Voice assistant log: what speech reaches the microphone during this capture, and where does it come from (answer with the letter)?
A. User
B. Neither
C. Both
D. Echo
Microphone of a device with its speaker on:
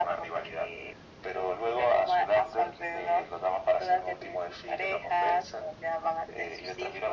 D